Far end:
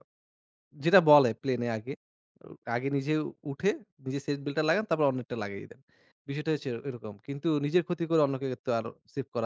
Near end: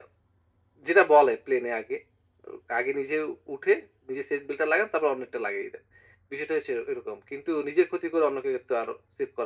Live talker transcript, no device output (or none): none